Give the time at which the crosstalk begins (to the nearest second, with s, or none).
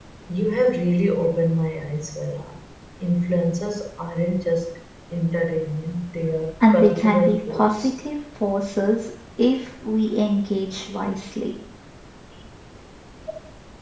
7 s